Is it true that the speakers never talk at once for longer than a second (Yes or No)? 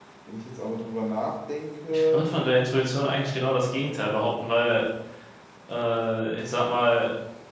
Yes